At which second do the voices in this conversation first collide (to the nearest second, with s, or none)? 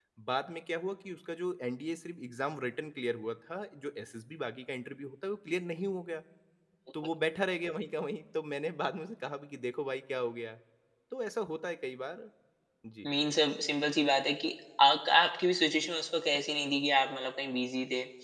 none